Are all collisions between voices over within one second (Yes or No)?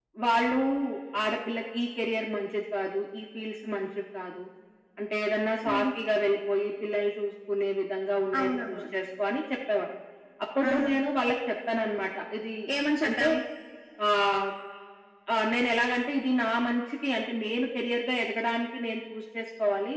Yes